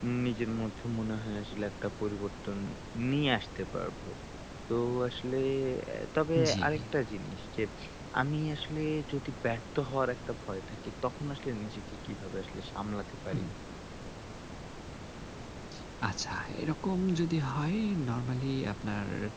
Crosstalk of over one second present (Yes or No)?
No